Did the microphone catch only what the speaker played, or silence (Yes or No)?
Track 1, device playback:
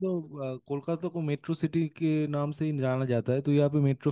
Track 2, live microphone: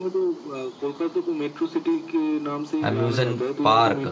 No